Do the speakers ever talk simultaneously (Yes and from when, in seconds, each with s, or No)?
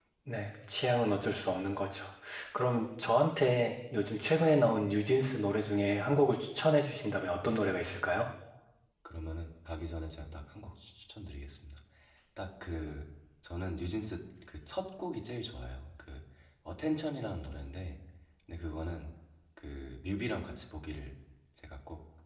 No